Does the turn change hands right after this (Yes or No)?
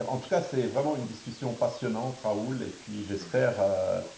No